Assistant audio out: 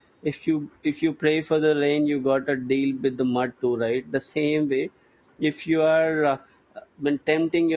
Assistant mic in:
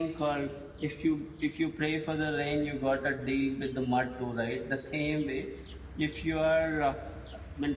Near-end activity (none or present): none